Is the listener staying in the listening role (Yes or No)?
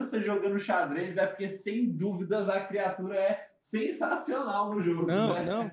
No